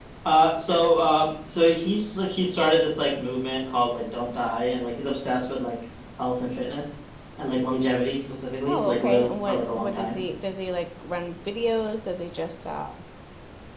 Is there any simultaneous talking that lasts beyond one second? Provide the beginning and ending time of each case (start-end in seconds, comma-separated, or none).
8.7-10.2